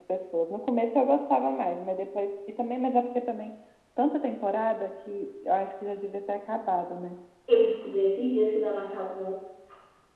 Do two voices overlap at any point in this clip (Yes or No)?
No